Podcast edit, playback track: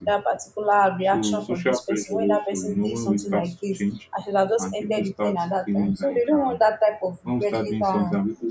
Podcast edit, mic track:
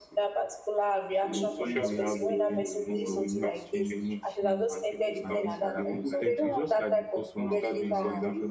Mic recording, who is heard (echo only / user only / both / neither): both